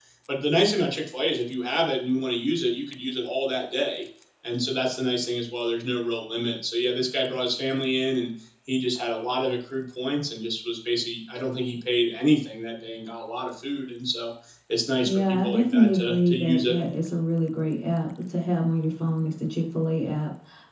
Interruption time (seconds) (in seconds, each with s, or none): 15.0 s